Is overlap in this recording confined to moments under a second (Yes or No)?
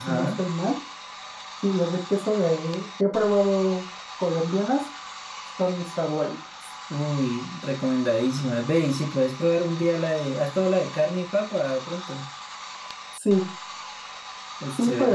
Yes